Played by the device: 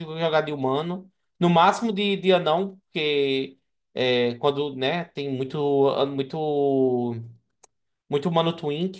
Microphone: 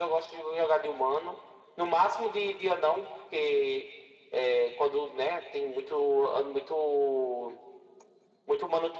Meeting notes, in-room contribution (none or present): none